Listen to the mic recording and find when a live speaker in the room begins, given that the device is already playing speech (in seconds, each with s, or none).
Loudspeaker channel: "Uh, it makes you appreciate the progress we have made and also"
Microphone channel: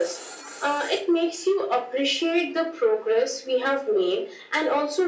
none